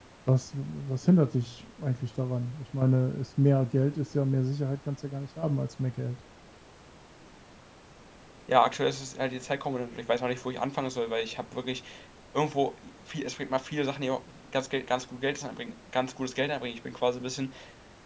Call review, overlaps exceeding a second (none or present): none